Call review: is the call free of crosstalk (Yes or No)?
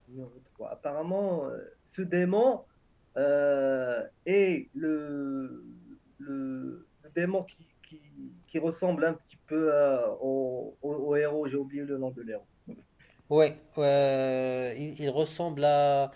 Yes